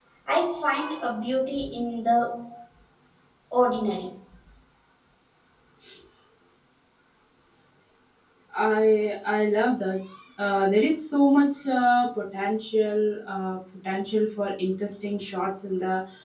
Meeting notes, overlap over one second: none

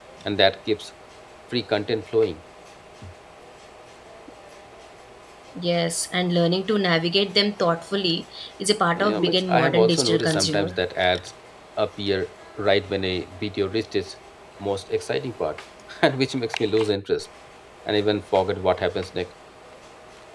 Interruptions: present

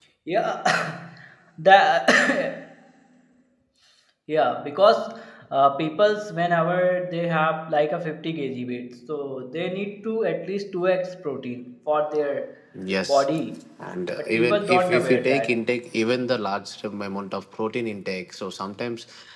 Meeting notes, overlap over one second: present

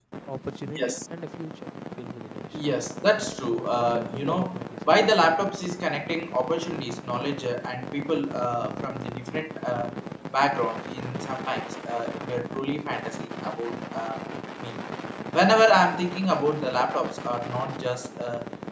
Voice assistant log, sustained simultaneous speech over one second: present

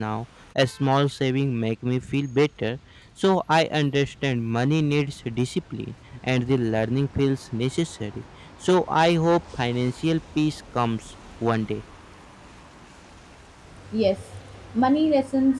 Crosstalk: none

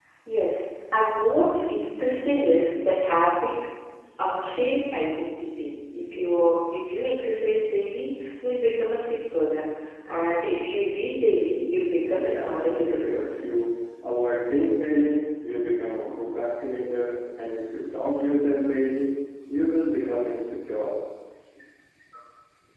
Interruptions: present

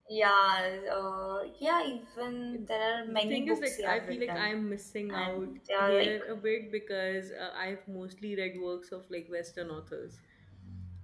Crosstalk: present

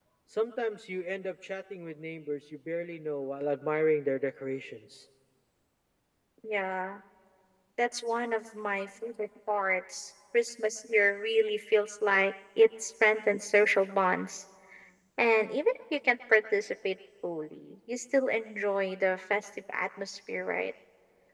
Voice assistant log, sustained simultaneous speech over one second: none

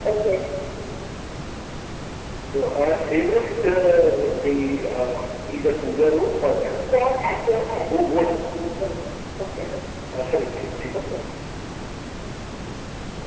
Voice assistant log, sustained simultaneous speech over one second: none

